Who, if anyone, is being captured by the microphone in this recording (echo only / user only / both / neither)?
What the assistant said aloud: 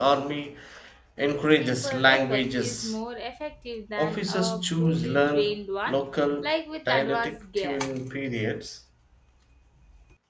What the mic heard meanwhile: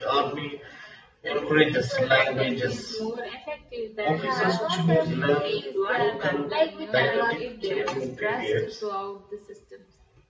both